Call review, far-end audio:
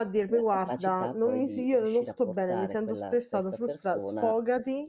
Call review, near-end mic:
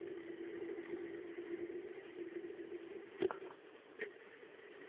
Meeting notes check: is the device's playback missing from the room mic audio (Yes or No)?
Yes